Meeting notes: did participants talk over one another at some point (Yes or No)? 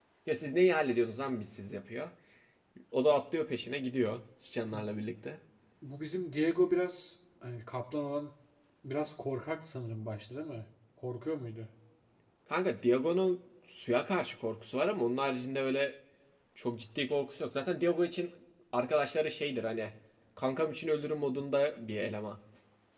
No